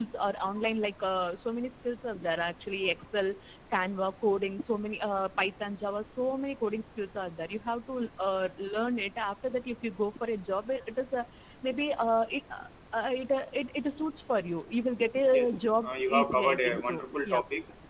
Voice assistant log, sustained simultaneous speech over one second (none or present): present